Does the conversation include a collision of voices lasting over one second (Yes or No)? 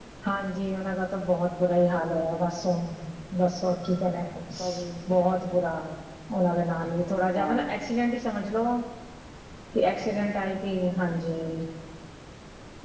No